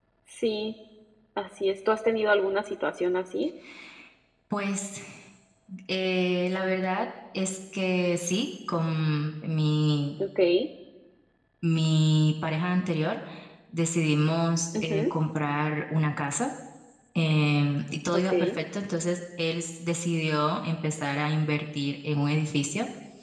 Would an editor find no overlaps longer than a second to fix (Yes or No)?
Yes